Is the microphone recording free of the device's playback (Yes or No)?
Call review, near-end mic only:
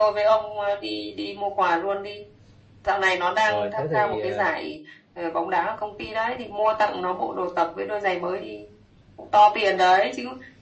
No